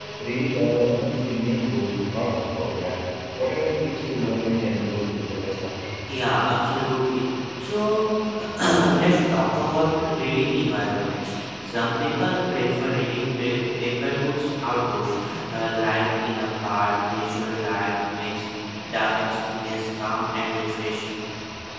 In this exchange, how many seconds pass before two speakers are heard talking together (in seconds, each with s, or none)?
none